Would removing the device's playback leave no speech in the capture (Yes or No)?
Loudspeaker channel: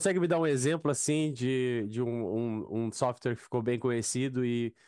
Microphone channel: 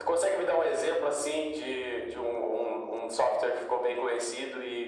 Yes